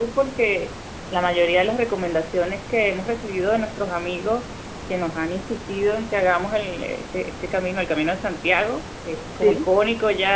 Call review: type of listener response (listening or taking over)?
listening